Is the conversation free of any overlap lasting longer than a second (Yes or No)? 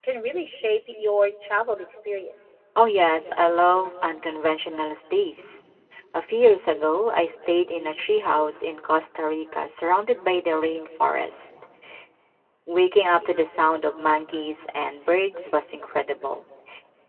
Yes